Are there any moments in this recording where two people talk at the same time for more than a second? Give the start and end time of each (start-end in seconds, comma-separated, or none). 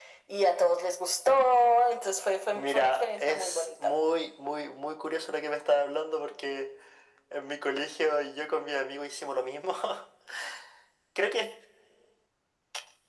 2.5-3.9